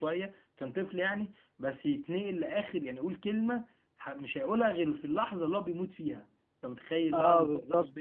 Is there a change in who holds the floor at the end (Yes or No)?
Yes